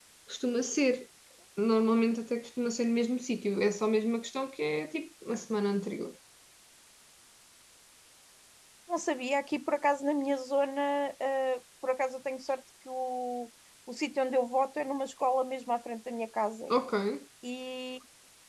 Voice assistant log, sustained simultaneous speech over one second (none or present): none